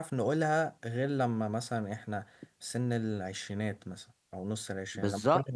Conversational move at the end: taking over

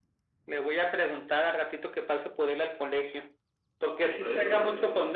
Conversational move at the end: listening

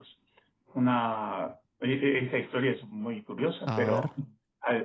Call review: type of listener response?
listening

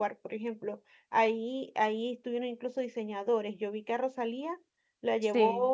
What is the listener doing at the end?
listening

